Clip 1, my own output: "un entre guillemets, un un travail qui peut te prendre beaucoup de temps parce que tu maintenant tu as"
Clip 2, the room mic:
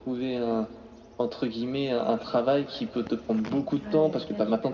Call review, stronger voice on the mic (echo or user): echo